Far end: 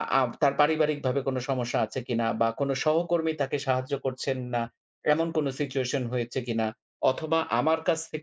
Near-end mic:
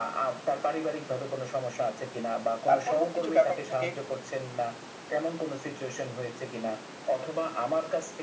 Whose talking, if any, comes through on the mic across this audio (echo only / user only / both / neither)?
both